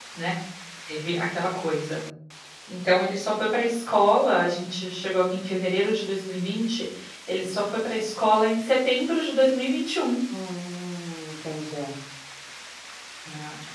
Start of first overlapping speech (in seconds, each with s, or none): none